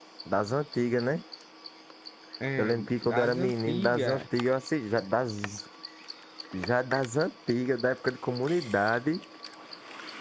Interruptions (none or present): present